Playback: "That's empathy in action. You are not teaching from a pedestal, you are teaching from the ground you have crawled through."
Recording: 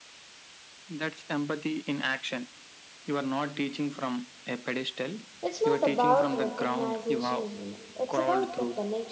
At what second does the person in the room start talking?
5 s

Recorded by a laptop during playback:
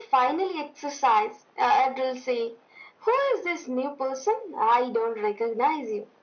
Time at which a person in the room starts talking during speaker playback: none

